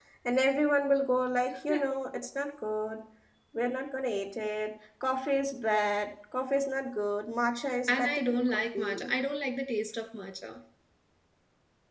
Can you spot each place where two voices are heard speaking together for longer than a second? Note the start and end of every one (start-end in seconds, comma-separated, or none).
7.9-9.1